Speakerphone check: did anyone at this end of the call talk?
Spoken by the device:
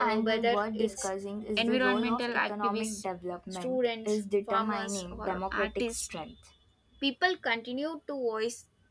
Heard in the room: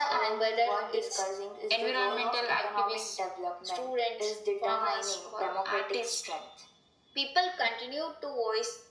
No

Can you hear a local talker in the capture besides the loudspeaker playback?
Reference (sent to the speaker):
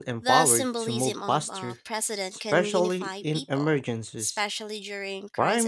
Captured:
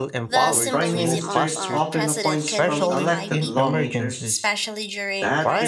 Yes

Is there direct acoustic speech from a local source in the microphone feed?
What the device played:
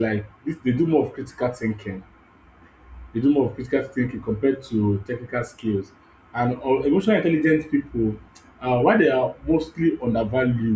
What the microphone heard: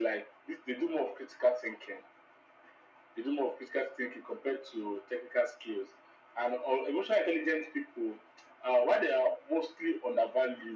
No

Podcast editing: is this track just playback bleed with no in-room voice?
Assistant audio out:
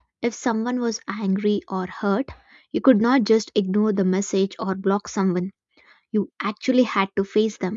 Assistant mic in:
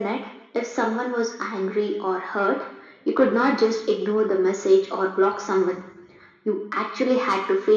Yes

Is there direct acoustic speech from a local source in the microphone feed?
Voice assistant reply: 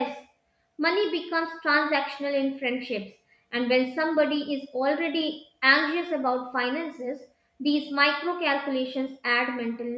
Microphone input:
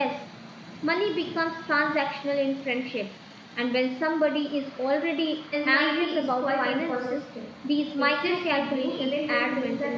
Yes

